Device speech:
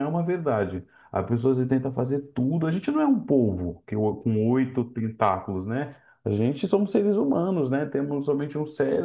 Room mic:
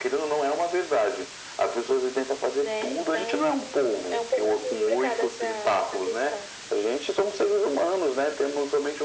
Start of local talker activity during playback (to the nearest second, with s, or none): 3 s